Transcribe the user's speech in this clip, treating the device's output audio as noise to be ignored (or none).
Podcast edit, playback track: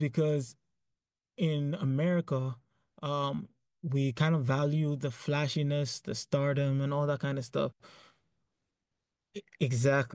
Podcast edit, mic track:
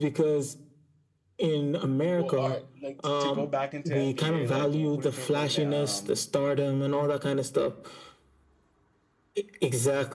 well, all right. Like to go back into NBA, like wh- who do you think is winning the um